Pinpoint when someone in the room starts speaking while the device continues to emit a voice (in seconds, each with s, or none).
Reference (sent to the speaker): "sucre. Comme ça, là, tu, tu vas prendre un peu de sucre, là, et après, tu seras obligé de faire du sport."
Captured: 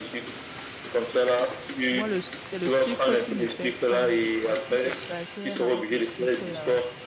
1.9 s